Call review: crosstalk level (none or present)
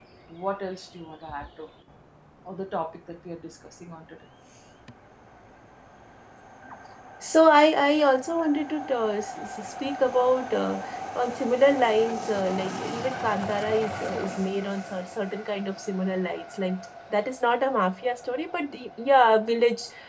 none